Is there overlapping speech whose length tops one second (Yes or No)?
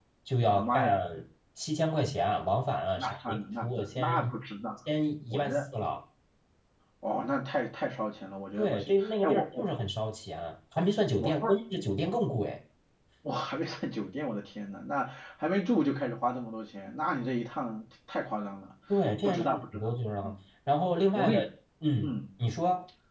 Yes